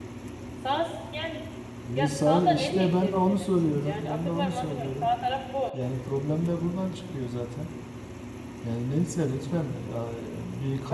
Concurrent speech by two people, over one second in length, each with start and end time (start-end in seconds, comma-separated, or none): 1.9-5.1